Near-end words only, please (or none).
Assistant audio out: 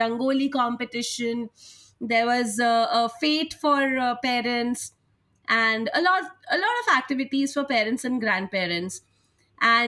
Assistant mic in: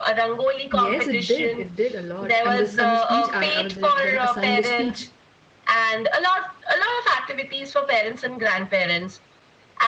Yes, it did. It did a lot. And this and the speech I, I was in, then assigned a speech